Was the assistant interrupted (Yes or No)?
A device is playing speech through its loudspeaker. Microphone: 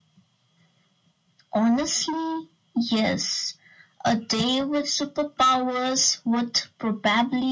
No